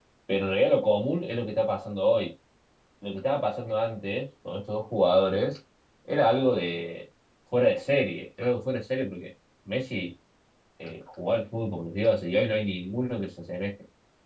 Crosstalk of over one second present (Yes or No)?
No